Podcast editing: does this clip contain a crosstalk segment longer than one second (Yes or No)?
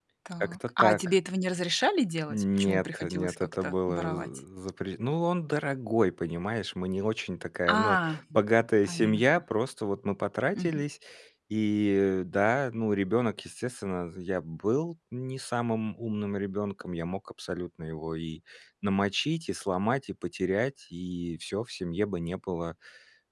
Yes